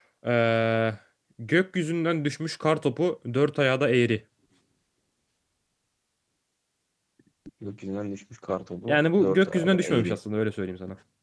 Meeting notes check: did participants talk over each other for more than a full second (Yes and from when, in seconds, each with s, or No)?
Yes, from 8.9 s